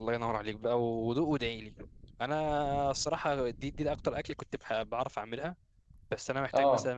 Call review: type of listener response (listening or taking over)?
listening